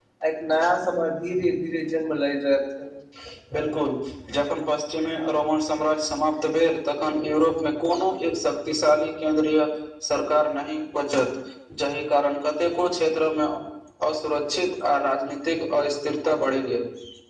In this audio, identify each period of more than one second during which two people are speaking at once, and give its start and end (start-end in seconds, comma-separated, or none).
none